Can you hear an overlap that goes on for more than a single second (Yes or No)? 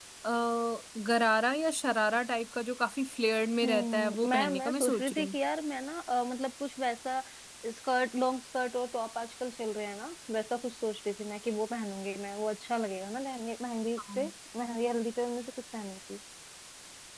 Yes